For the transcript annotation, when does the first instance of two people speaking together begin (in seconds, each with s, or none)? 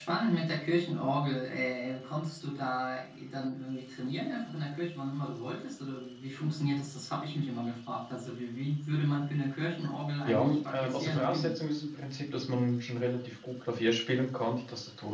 10.3 s